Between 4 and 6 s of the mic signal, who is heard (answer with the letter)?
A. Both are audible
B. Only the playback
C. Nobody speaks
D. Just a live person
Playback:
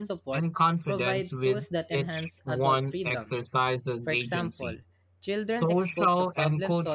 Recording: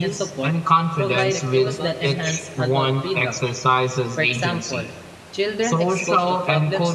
B